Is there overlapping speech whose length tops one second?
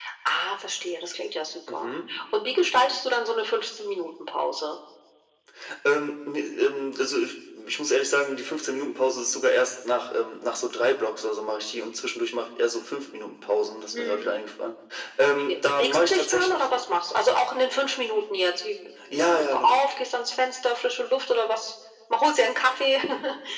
Yes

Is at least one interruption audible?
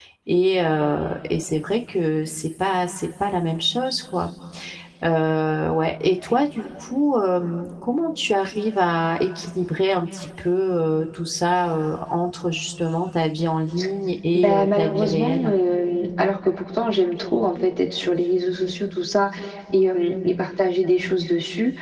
Yes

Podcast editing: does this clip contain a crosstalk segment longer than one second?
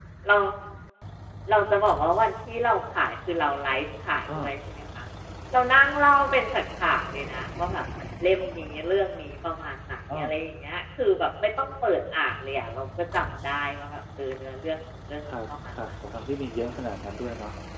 No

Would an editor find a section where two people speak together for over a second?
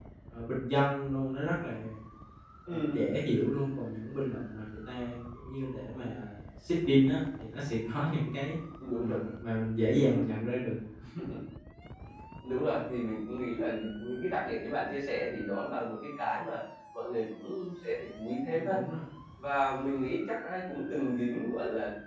No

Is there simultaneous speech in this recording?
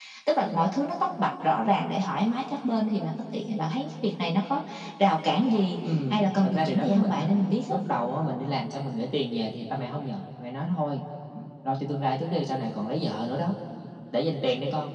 Yes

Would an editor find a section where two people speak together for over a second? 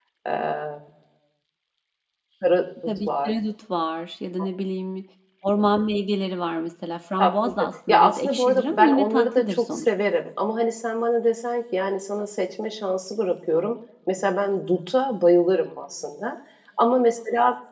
Yes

